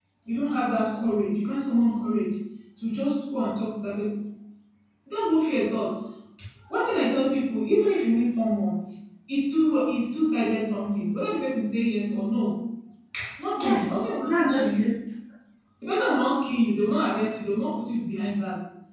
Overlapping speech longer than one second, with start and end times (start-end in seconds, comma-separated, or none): 13.6-14.8